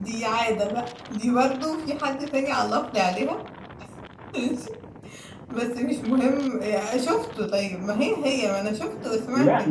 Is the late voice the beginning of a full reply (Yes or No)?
Yes